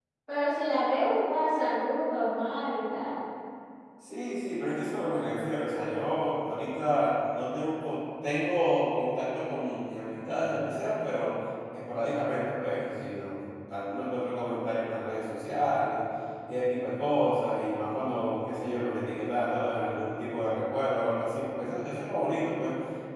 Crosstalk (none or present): none